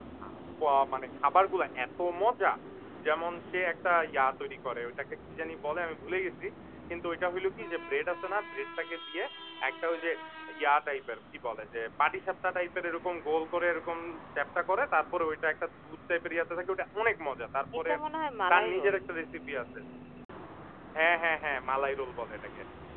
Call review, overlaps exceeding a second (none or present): none